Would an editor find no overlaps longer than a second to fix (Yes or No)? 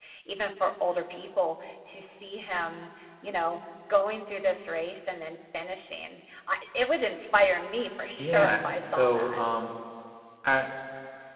No